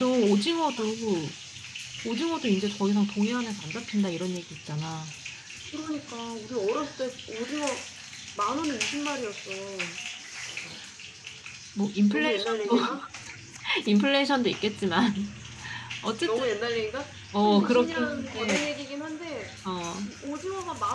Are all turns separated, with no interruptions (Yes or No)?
No